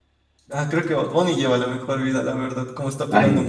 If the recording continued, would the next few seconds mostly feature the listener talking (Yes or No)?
Yes